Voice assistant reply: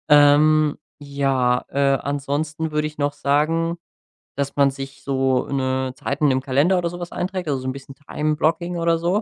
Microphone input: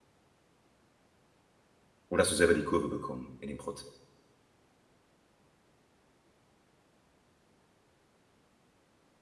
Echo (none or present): none